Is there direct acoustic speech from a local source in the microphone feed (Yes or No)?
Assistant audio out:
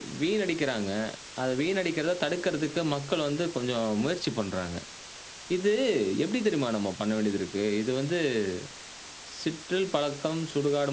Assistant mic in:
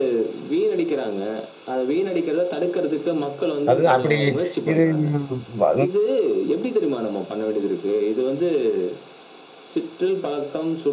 Yes